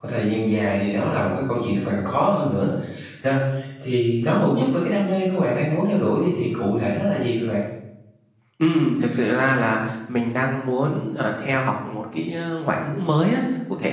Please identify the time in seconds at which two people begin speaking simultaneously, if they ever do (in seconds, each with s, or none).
none